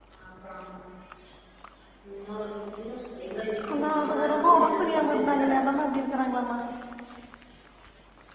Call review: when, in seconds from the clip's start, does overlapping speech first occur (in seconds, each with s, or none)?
3.7 s